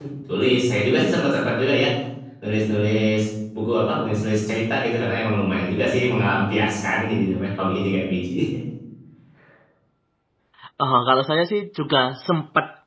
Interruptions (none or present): none